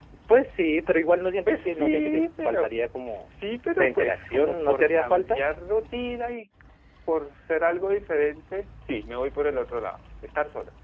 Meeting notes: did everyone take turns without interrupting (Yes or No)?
No